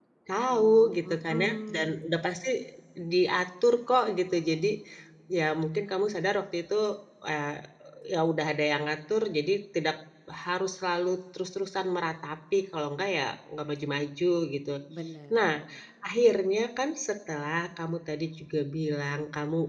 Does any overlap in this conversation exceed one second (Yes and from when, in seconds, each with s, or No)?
Yes, from 0.5 s